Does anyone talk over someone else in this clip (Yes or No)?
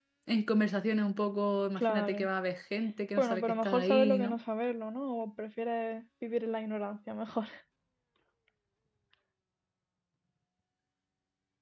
Yes